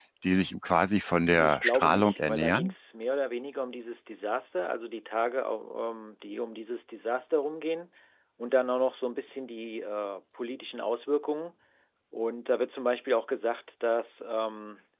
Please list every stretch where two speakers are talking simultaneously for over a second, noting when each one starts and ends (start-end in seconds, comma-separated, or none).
1.3-2.7